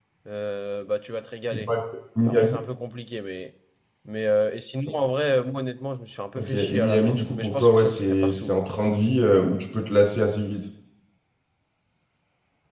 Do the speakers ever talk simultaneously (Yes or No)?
Yes